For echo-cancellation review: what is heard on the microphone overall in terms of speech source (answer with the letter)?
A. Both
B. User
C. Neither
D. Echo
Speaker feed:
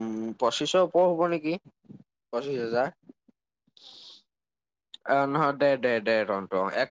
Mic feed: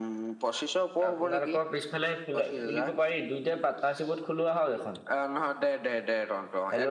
A